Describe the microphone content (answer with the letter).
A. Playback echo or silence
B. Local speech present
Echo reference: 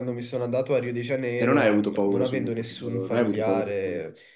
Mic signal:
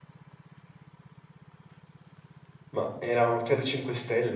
B